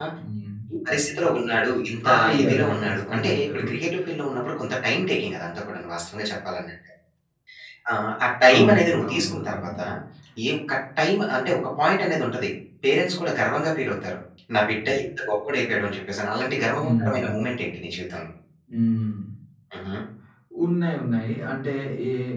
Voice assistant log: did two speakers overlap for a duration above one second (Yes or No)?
Yes